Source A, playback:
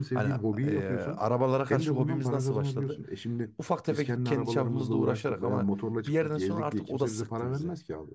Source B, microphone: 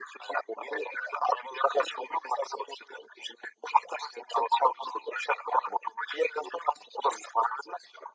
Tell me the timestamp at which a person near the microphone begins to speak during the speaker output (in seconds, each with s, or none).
none